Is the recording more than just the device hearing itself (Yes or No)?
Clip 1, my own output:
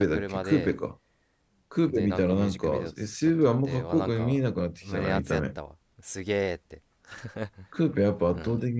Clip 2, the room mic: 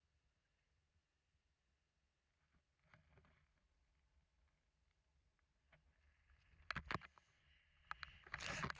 No